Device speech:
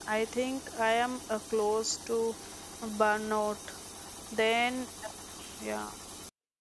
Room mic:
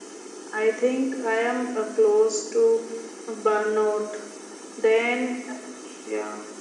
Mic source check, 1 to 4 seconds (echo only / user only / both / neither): echo only